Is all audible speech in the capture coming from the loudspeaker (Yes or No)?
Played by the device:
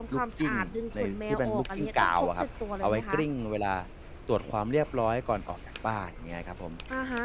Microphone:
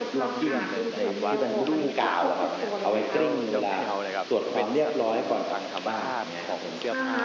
No